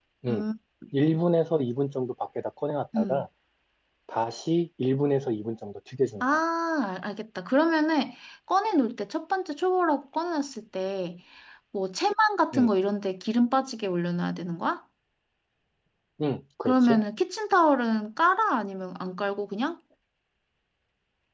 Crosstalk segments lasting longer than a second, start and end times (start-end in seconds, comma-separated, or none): none